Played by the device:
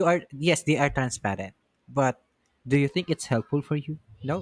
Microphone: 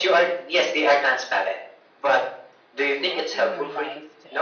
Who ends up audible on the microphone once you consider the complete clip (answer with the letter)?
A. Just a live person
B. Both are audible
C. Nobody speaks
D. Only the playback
B